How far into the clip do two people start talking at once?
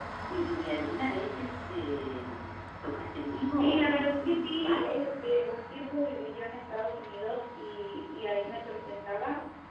3.5 s

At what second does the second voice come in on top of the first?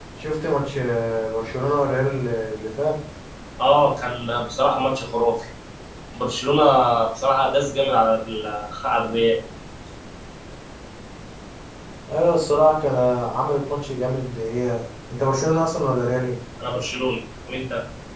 none

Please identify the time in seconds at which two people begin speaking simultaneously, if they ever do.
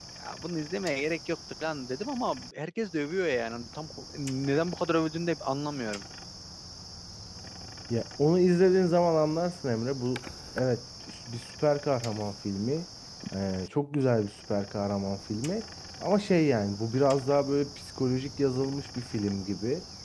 none

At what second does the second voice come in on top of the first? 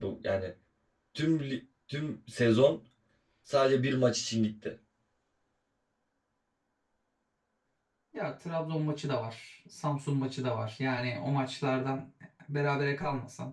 none

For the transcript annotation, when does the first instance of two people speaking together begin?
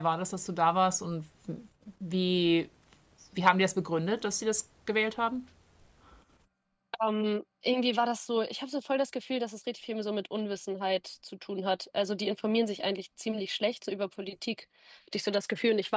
none

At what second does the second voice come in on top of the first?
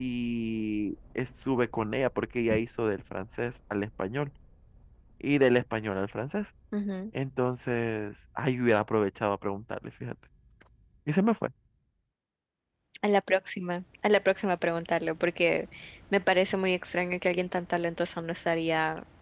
none

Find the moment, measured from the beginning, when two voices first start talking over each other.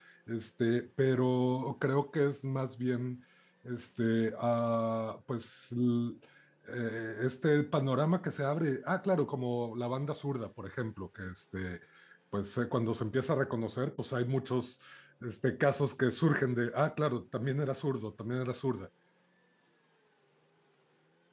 none

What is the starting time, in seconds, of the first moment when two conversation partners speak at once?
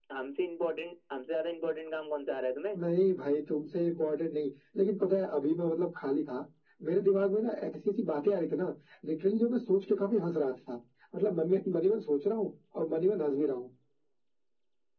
none

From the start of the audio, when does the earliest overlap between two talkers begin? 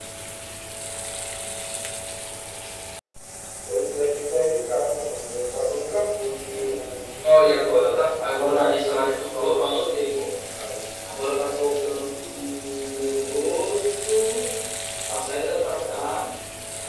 6.4 s

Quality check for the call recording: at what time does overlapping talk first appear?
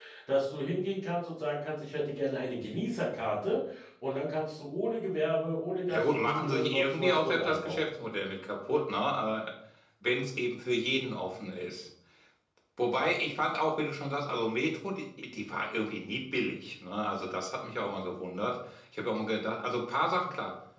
5.9 s

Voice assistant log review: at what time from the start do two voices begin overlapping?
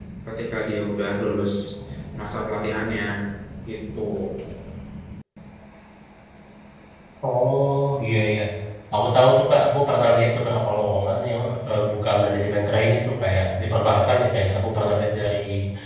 none

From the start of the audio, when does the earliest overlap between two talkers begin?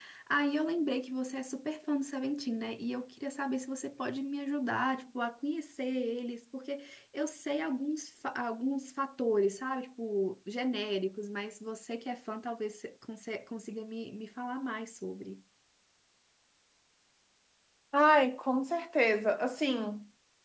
none

